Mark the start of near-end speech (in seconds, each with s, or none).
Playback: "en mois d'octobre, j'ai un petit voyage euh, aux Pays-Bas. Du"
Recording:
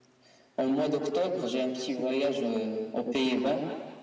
none